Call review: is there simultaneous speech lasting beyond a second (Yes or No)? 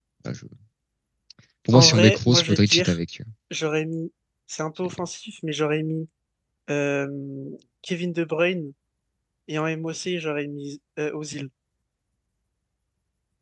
Yes